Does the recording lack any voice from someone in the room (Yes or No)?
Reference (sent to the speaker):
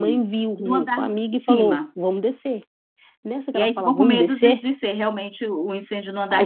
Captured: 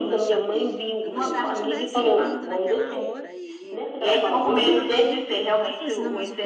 No